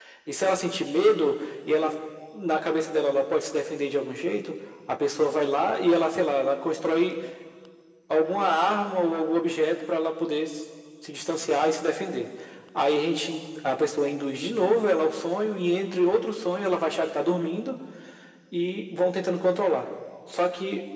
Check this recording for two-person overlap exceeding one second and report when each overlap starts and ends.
none

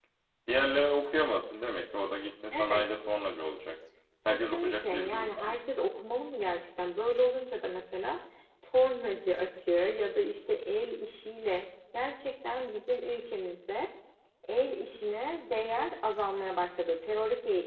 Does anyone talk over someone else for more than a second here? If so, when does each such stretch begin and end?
4.3-5.5

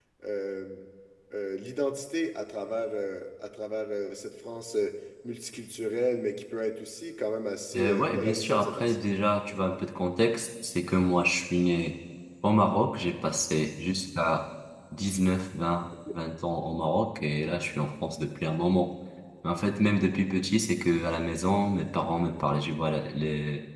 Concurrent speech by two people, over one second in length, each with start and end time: 7.8-9.0

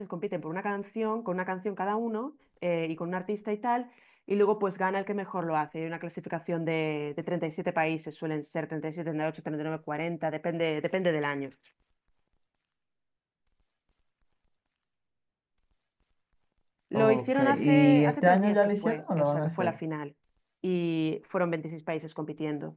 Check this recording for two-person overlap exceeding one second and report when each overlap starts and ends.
16.9-19.8

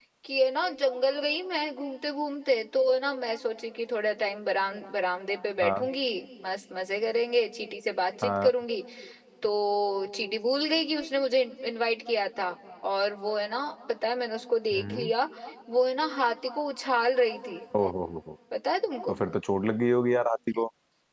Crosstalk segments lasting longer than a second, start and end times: none

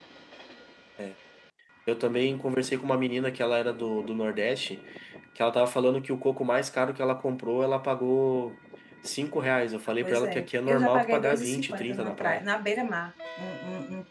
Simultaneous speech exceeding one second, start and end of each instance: 10.0-12.4

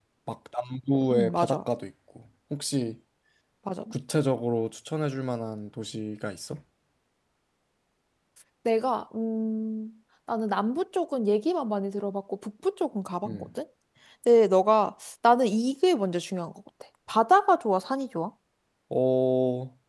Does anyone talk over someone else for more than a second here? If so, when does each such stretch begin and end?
none

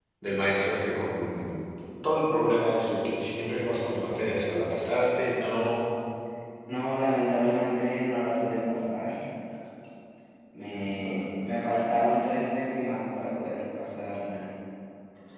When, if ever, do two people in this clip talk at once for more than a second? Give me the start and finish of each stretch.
none

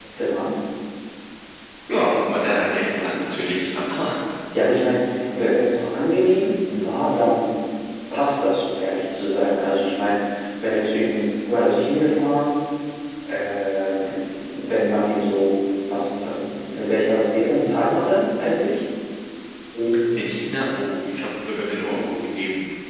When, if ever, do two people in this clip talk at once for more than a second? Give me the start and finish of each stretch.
none

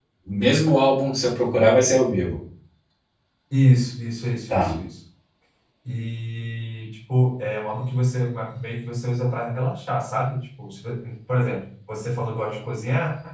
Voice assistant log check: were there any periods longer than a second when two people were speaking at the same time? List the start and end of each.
none

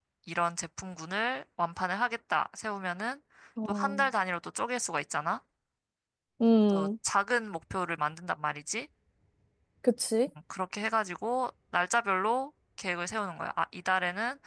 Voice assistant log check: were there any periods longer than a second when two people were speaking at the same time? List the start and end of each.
none

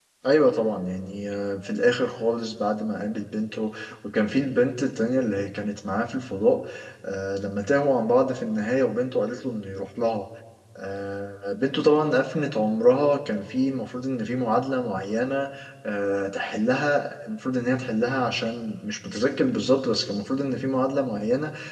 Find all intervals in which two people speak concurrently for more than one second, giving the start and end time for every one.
none

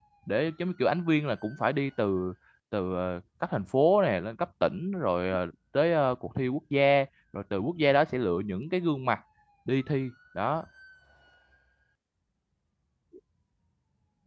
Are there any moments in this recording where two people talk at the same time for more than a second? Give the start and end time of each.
none

